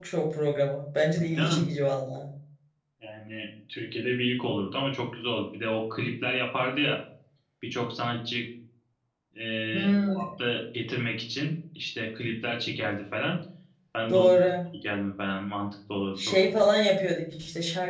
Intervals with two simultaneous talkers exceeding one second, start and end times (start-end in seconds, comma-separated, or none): none